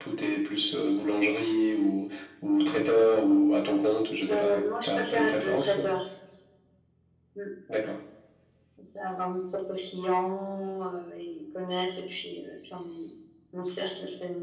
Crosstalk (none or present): present